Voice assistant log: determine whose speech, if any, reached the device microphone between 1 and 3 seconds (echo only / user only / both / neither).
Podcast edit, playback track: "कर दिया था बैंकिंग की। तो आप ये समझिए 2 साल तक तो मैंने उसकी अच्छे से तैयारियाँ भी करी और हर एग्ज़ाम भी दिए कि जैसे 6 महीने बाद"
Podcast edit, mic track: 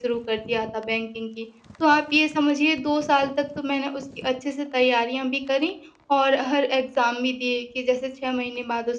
echo only